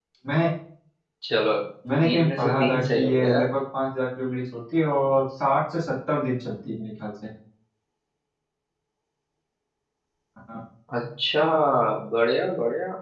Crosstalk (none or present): present